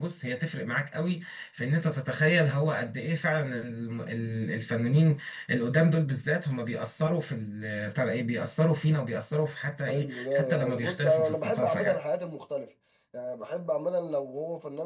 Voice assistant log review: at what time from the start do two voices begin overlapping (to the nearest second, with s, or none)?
10 s